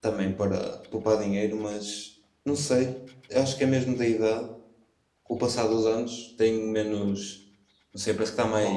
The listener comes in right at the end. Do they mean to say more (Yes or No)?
No